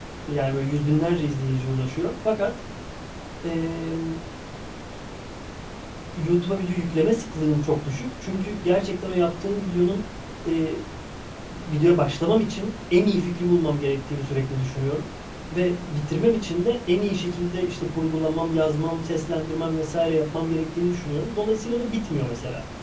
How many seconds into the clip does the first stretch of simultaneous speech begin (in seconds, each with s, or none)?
none